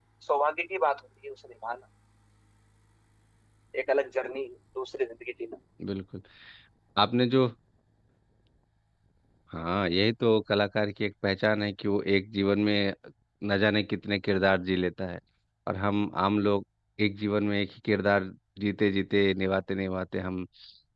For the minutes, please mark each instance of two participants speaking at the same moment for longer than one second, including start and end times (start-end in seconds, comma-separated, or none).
none